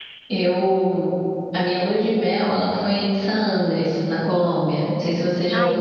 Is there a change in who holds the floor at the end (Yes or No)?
Yes